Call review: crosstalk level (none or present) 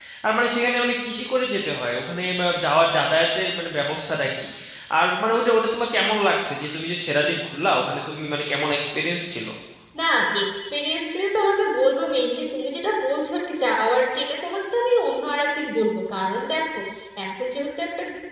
none